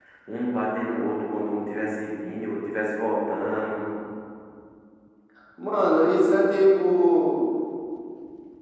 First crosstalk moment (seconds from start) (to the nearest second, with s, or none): none